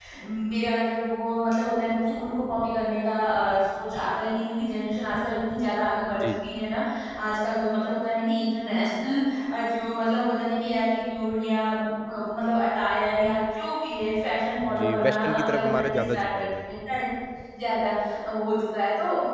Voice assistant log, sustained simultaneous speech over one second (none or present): present